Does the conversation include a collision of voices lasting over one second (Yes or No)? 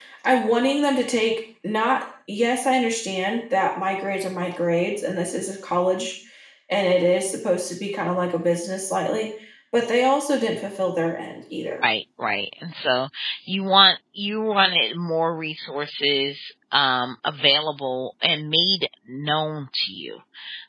No